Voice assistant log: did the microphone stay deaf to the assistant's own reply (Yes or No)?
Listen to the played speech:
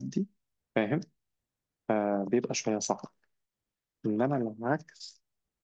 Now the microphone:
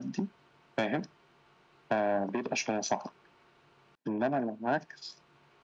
No